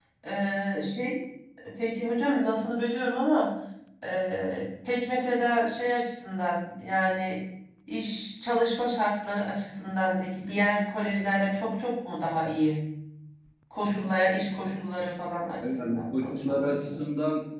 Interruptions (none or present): present